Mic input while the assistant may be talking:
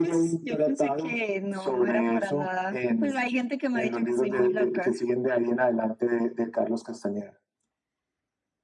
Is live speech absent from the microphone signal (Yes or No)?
Yes